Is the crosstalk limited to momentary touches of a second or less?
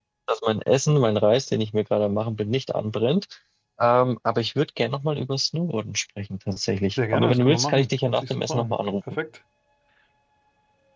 No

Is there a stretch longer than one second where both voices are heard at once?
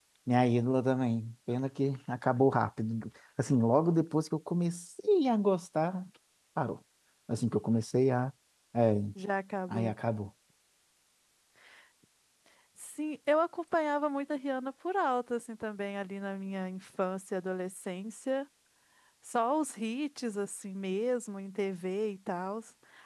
No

